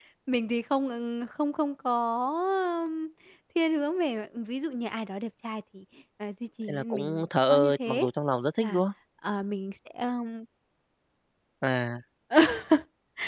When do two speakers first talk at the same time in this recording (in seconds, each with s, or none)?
6.7 s